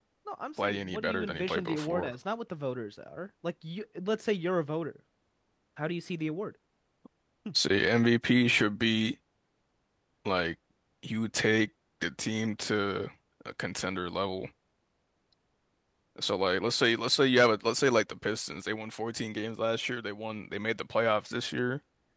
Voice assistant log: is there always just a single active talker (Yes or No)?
No